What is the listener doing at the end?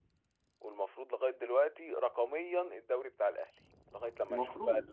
taking over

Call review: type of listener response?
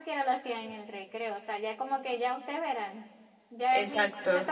listening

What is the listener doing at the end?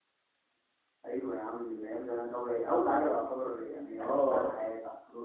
taking over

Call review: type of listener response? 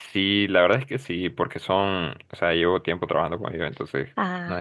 listening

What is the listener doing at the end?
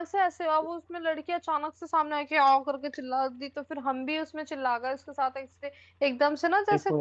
listening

